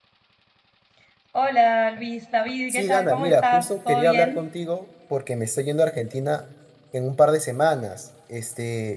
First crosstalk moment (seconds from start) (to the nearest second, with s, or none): 3 s